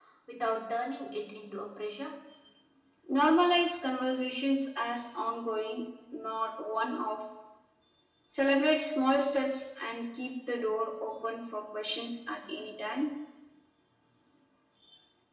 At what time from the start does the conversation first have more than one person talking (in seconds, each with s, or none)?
none